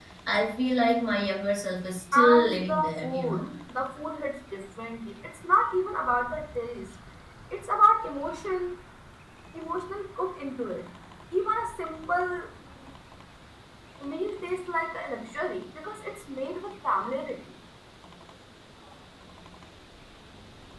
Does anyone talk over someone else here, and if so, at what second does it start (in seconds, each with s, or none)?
2.1 s